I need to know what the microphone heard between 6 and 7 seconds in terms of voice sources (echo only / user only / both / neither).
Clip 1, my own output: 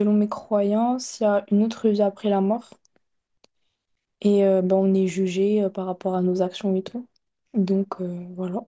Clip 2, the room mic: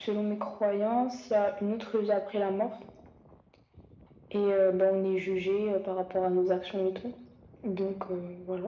echo only